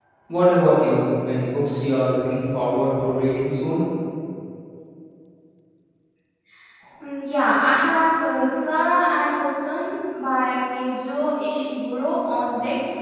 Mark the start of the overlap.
none

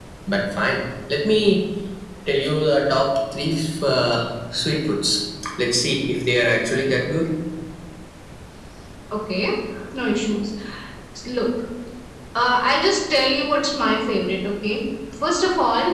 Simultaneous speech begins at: none

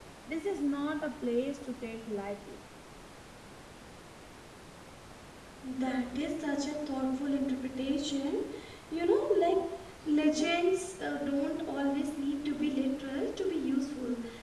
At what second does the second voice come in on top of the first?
none

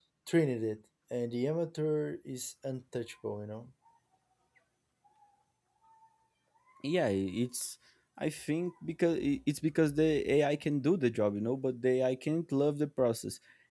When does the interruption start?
none

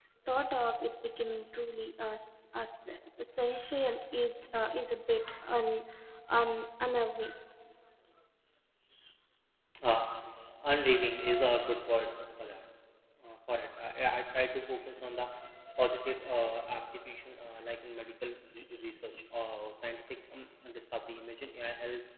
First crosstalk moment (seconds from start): none

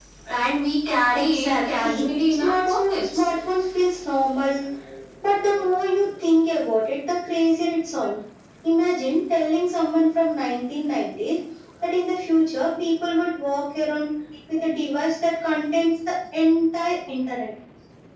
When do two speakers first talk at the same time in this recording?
1.1 s

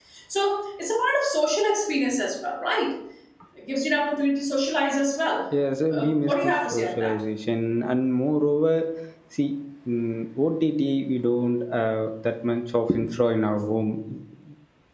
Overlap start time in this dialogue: 5.9 s

